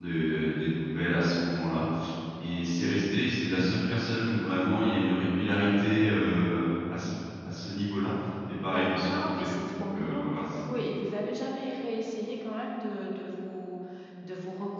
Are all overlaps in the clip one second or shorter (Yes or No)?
No